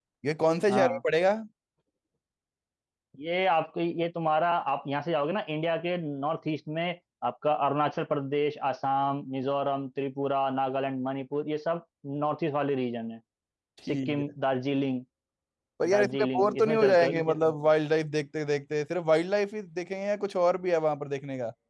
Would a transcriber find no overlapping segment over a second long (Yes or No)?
No